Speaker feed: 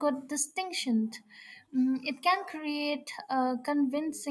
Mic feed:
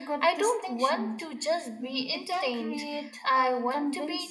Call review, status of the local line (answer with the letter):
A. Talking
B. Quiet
A